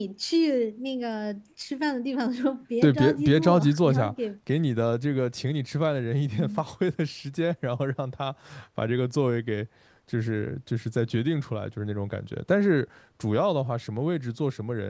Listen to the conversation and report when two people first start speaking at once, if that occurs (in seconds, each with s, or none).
2.8 s